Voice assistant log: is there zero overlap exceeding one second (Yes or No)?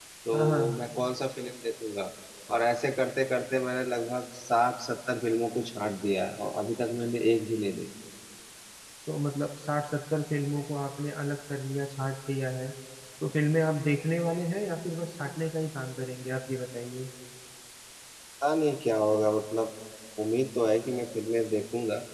Yes